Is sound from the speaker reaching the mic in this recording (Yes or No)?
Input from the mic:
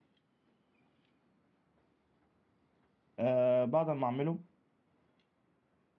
No